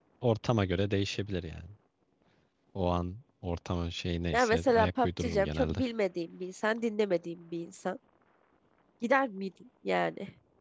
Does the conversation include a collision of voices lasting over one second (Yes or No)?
Yes